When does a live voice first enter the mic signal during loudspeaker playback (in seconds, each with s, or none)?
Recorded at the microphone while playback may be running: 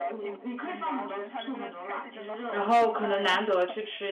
2.5 s